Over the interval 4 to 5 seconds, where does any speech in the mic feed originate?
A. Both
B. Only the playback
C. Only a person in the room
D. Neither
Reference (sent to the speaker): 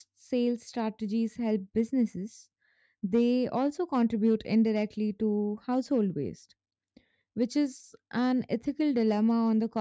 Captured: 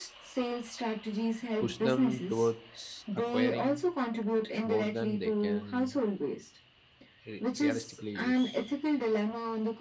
A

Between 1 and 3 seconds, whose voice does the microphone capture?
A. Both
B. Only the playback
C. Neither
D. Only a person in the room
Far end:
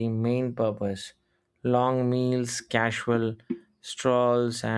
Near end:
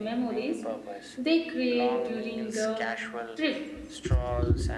A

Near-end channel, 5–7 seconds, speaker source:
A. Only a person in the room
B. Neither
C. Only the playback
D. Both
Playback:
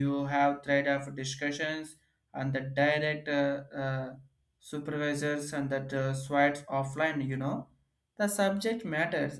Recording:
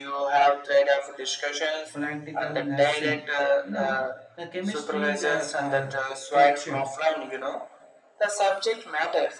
D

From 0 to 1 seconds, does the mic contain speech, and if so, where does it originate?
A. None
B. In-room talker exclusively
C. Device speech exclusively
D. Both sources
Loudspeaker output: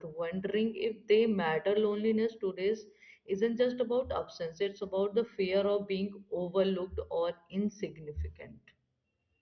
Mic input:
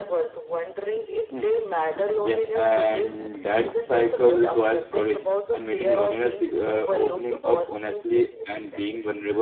C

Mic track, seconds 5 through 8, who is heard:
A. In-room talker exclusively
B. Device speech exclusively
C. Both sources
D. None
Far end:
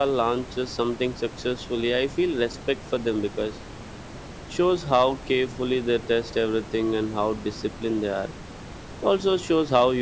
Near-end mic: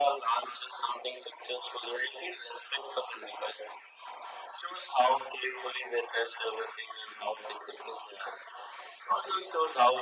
B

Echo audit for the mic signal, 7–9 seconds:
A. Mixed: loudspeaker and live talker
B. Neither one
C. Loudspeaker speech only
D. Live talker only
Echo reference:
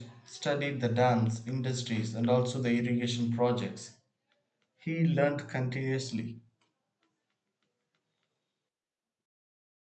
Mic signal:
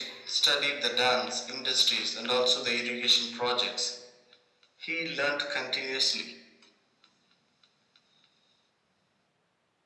B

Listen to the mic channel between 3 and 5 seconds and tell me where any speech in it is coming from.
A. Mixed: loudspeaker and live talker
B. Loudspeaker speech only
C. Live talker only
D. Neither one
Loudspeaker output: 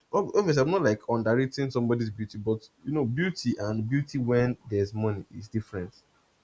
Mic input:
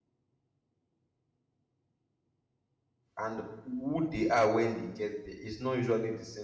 C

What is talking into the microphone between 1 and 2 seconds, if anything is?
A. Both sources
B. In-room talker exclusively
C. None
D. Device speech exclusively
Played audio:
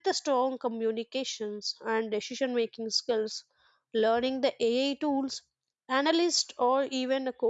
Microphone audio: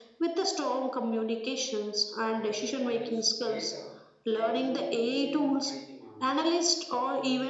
D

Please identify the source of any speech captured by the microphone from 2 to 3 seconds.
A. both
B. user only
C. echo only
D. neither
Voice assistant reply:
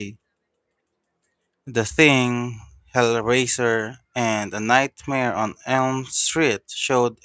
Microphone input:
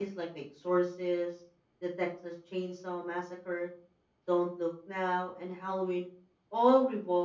B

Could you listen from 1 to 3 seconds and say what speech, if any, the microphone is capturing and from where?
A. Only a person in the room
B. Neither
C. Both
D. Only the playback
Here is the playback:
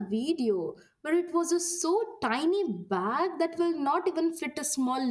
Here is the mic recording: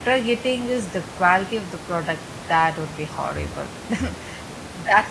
A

